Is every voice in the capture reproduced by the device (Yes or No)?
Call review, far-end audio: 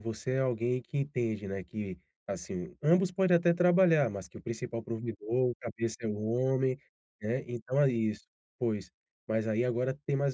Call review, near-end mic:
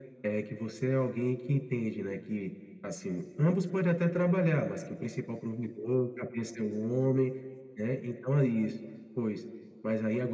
Yes